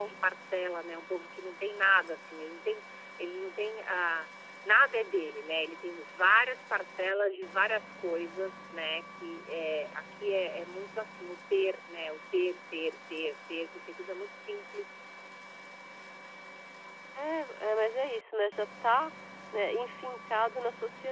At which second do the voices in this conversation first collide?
none

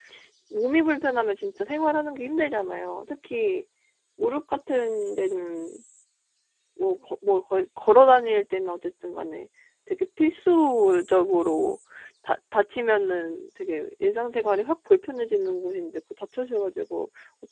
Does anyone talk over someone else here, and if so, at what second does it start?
none

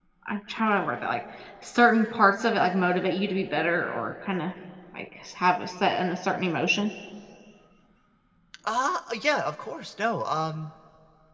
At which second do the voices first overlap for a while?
none

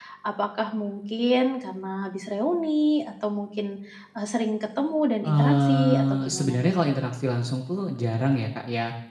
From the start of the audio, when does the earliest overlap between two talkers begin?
5 s

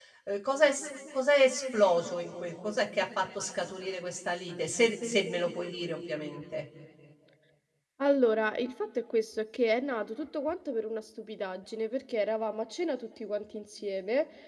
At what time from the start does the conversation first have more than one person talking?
none

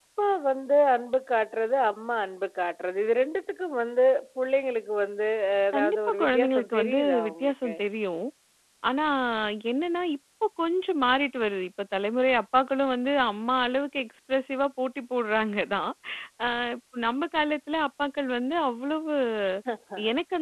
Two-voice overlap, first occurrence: 6 s

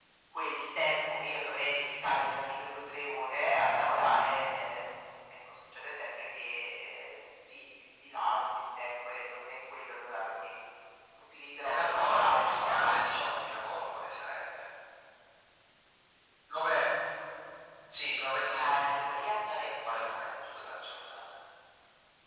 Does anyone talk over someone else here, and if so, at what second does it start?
12 s

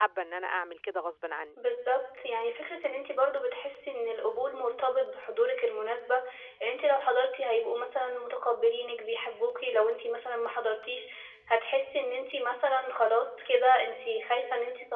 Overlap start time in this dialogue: none

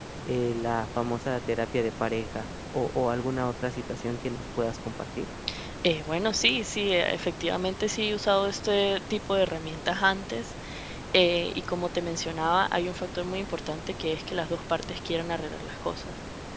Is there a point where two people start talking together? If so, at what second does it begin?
none

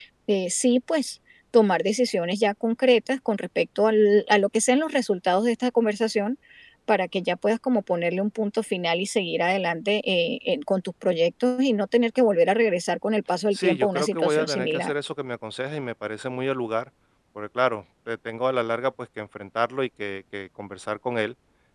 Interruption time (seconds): 14 s

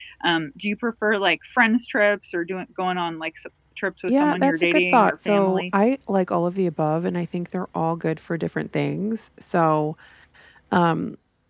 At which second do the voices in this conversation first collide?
4 s

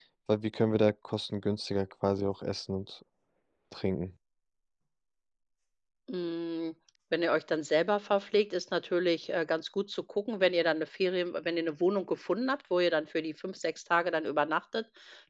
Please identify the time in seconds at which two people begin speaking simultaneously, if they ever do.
none

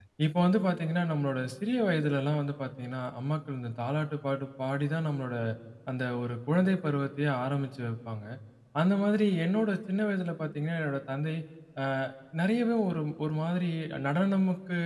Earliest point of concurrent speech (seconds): none

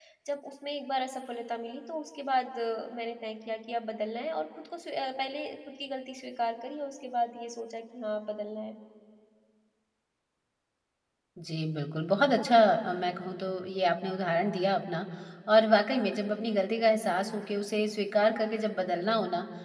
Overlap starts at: none

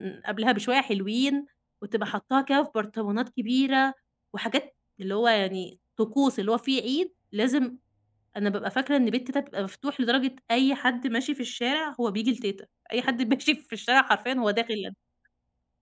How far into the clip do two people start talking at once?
none

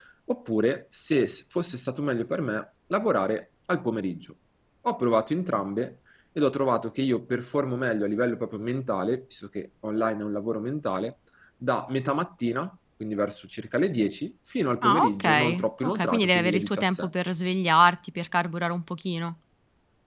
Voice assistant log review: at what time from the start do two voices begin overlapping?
15 s

